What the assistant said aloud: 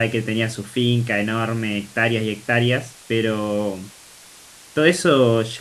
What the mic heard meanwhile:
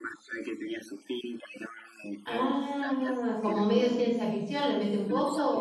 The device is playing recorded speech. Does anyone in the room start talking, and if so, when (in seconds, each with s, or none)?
2.2 s